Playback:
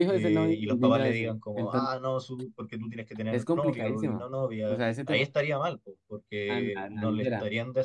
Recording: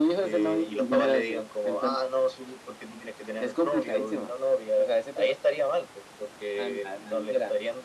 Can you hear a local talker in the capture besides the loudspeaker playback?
No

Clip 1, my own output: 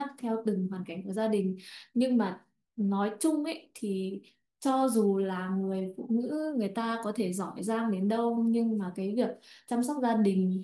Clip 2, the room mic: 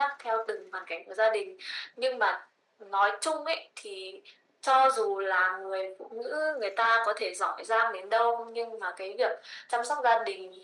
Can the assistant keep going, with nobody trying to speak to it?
Yes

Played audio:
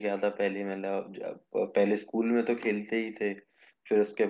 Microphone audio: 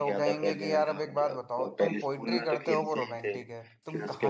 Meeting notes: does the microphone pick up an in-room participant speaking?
Yes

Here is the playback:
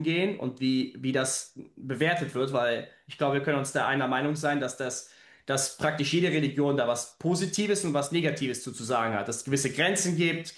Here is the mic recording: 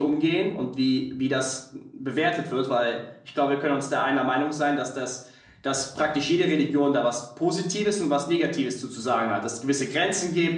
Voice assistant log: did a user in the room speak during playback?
No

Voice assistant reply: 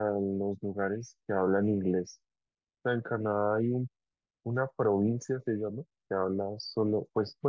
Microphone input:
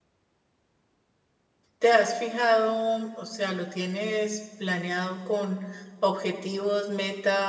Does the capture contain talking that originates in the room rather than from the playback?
Yes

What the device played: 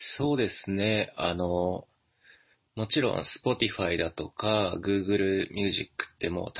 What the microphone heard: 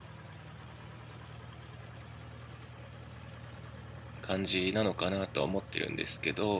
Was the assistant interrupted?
Yes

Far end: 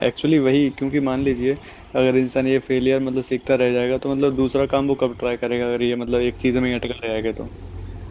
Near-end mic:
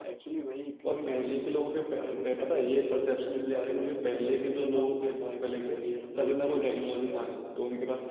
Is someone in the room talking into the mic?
Yes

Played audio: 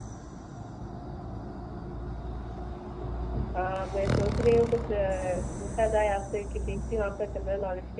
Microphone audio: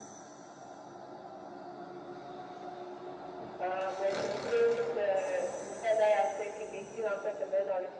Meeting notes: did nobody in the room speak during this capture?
Yes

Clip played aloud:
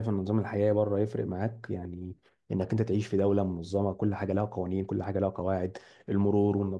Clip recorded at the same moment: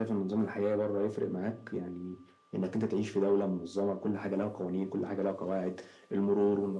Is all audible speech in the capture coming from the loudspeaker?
Yes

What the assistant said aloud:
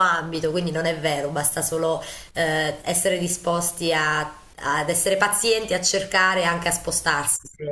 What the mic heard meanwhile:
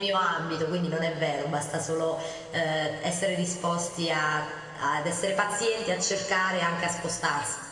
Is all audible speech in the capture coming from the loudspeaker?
Yes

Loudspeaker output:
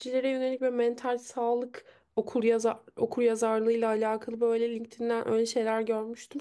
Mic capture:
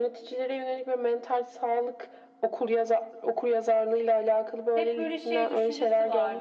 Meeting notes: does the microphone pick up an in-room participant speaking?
Yes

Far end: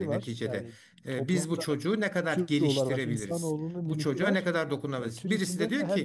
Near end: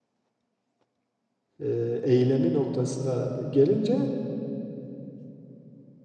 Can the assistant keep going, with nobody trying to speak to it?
No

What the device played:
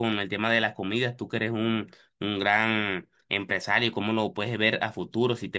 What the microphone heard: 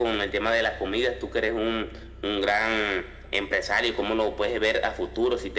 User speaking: No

